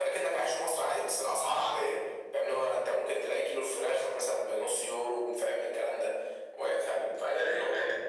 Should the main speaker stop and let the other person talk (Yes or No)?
No